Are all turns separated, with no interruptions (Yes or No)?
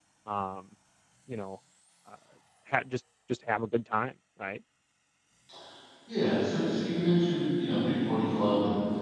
Yes